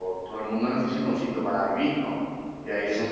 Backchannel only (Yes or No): Yes